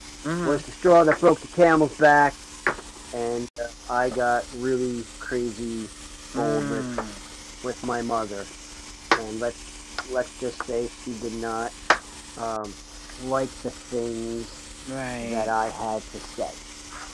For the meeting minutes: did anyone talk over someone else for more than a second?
No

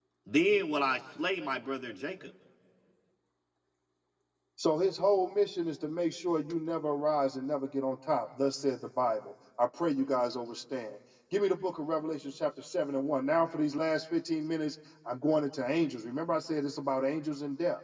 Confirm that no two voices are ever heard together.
Yes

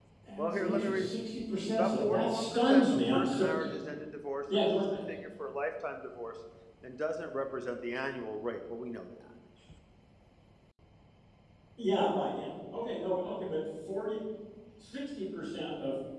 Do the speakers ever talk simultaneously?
Yes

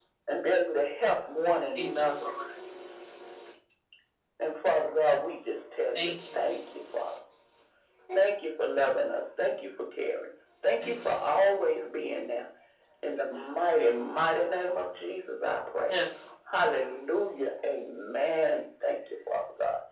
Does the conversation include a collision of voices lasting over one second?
No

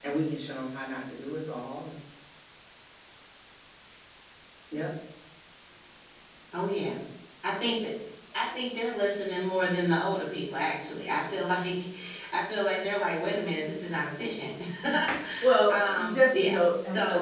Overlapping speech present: Yes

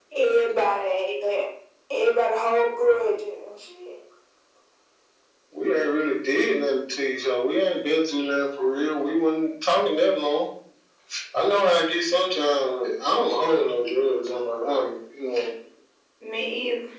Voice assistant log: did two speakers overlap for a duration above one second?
No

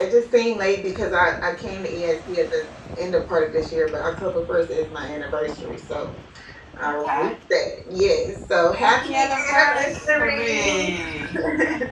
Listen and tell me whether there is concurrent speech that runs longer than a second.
Yes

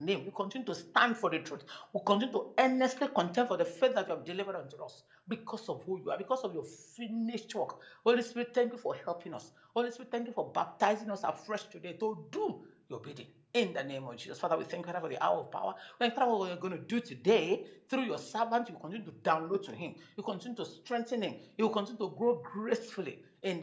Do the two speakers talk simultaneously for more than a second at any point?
No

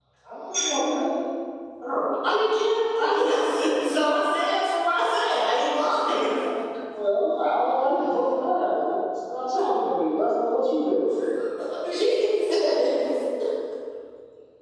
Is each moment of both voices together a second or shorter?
Yes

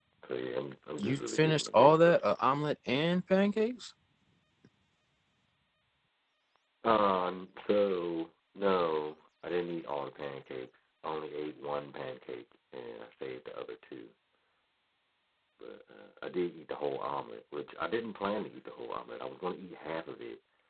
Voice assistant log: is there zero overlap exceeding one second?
No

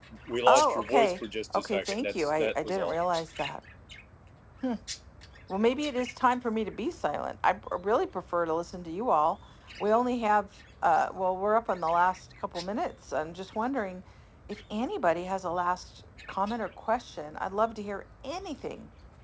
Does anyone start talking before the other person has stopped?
Yes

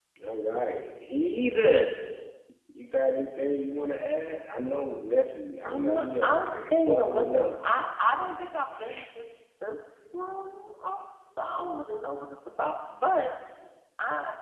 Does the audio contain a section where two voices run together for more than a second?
Yes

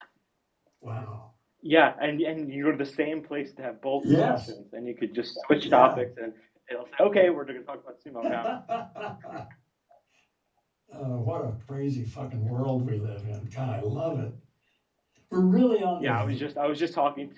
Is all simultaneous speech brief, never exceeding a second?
Yes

